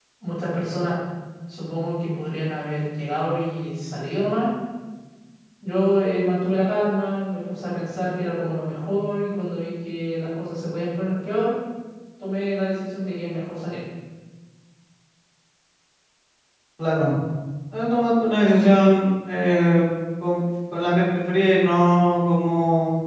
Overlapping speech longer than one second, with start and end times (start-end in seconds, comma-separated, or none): none